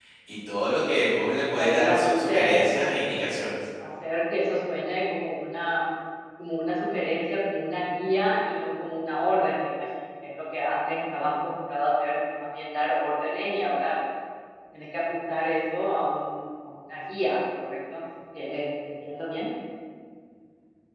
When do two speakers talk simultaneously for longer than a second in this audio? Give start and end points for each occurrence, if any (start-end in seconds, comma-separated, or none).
1.6-3.4